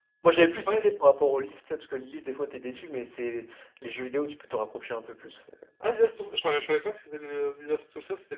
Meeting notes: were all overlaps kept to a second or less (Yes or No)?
Yes